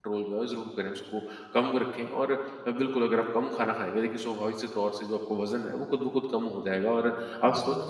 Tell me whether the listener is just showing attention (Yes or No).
Yes